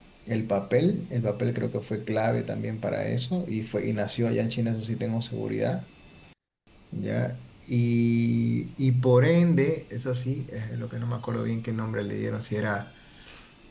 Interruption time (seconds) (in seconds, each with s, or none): none